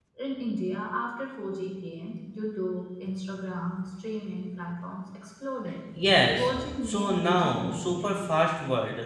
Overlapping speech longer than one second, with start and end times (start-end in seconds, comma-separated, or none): 6.4-8.2